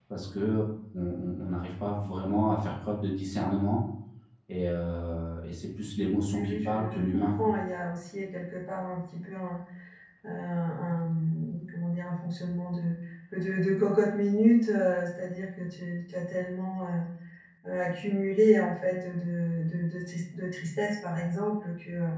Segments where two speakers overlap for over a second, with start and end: 6.2-7.5

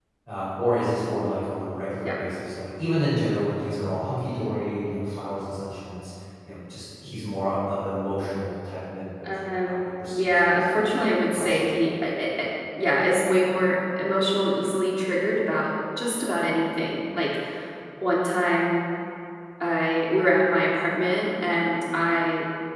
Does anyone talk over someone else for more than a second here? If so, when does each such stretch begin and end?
9.2-10.8

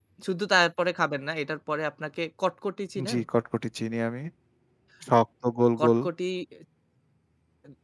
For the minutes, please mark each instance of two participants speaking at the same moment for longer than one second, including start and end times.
none

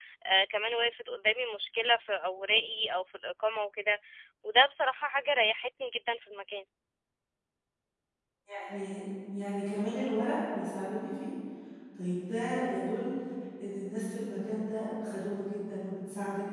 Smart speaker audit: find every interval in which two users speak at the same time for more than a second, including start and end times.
none

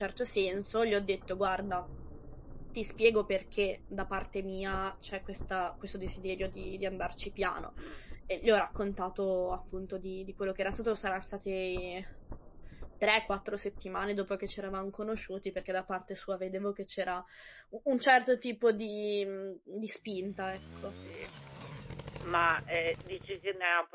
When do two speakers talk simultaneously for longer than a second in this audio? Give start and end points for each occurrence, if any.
none

